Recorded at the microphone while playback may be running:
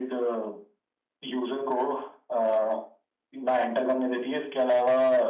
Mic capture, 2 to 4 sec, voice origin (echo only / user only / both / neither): echo only